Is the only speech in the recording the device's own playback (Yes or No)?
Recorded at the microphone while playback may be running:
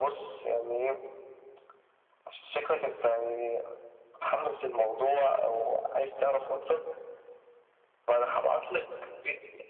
Yes